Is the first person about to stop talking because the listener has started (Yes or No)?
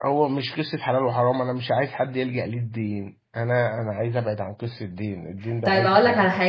Yes